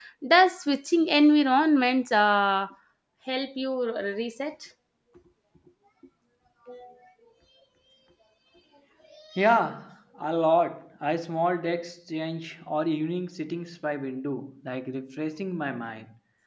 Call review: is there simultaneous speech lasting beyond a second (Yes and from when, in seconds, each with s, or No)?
No